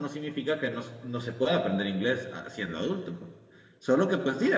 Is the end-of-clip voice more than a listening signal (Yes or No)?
No